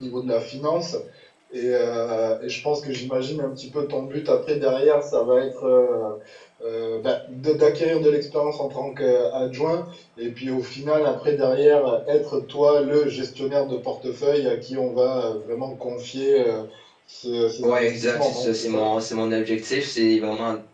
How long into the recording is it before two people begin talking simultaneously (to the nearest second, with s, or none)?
18 s